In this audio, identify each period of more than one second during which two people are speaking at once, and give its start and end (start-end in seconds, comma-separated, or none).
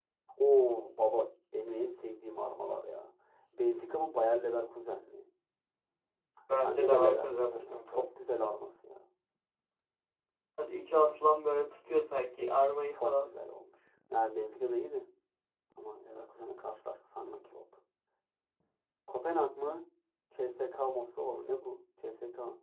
6.6-8.0